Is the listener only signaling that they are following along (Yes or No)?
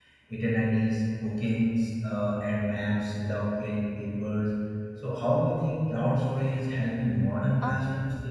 No